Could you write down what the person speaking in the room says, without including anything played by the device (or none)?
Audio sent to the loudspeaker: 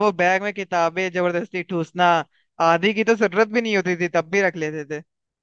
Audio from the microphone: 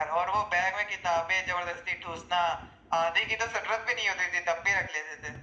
none